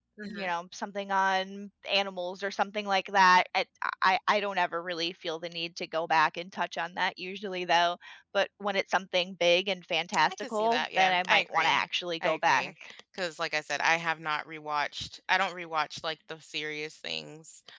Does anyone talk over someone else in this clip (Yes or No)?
Yes